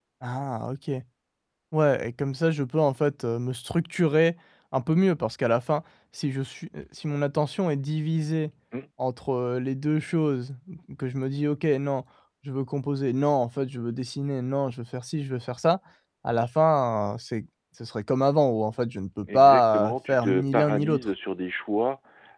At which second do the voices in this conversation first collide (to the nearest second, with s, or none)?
19 s